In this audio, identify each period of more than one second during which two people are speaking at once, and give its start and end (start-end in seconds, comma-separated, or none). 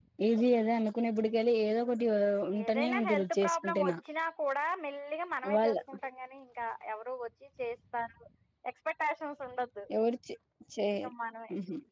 2.6-3.9